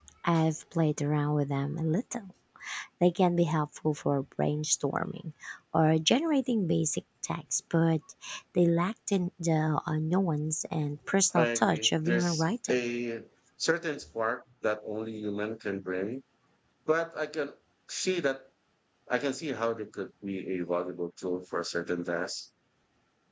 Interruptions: present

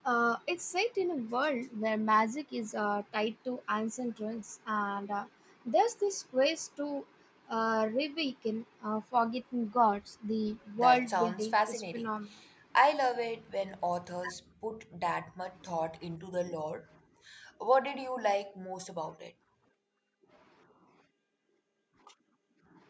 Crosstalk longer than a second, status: present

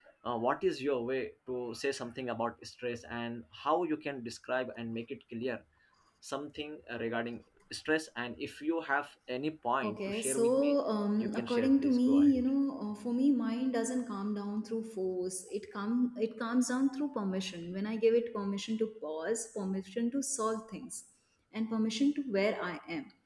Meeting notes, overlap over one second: present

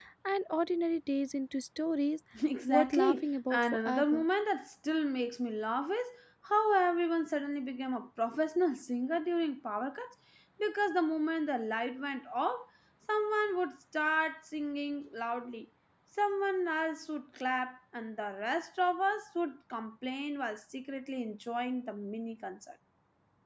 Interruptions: present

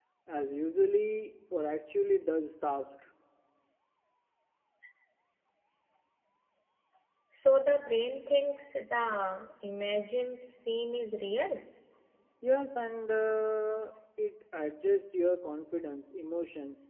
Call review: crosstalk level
none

